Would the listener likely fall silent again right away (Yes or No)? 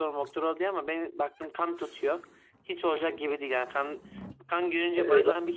Yes